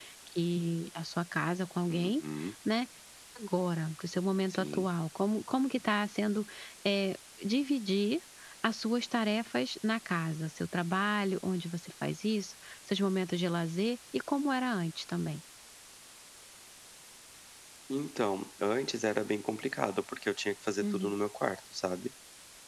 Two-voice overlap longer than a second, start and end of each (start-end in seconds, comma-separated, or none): none